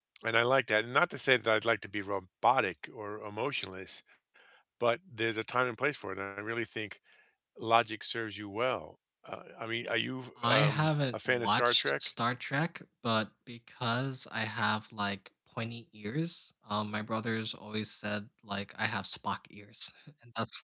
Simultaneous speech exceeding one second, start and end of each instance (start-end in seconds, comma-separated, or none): 10.4-11.9